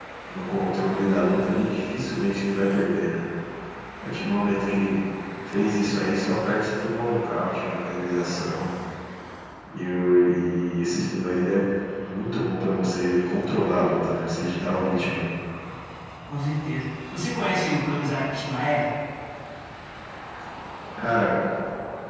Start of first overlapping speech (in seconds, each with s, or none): none